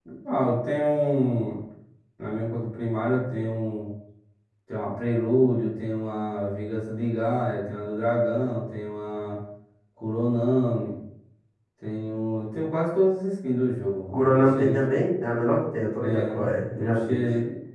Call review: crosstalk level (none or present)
present